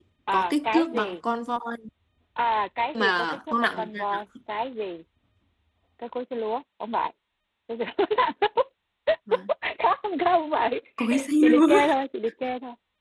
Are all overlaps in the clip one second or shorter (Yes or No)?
No